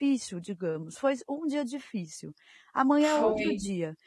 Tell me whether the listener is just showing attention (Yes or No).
Yes